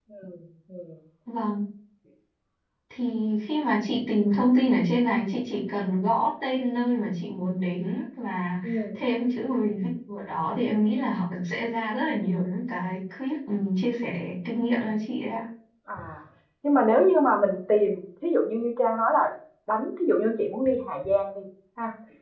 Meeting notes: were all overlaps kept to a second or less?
Yes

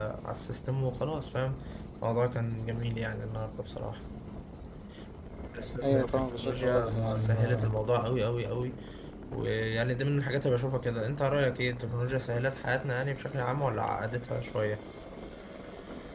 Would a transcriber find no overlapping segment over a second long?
No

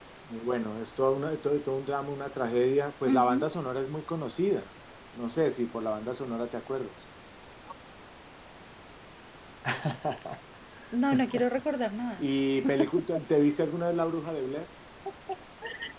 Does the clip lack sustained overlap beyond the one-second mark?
Yes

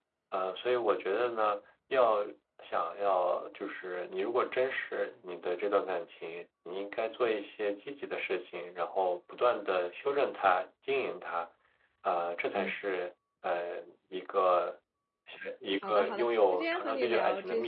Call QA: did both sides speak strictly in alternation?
No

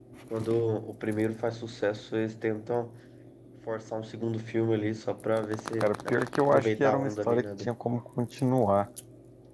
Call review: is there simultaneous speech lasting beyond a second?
Yes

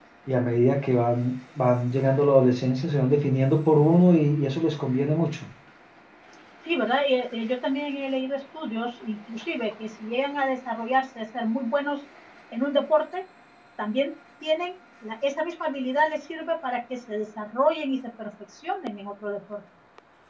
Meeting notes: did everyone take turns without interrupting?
Yes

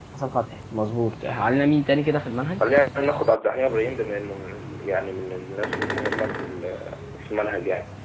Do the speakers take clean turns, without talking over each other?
Yes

